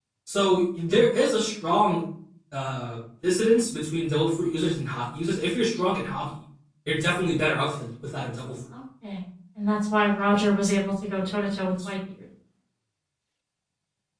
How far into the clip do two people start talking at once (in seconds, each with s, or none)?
none